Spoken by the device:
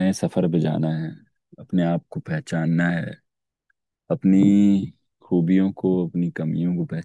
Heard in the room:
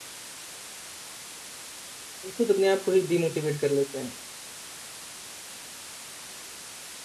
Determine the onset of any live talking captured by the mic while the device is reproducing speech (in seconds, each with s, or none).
2.2 s